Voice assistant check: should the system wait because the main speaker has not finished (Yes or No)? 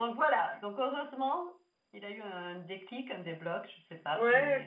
No